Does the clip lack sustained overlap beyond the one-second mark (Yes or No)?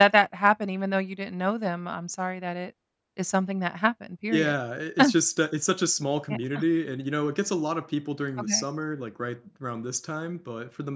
Yes